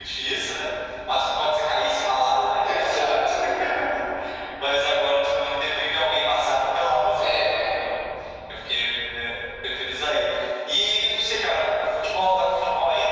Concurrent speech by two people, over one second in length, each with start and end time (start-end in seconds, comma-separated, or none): none